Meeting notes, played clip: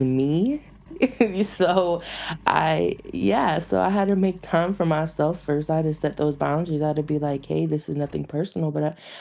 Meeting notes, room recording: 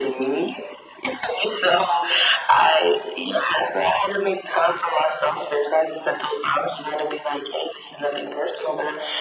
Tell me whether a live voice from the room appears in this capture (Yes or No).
No